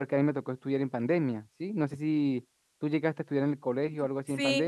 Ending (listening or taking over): taking over